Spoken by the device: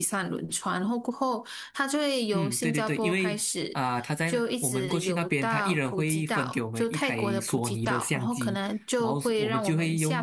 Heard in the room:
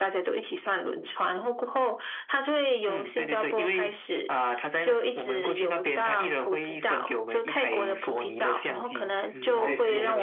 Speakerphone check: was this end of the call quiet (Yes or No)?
No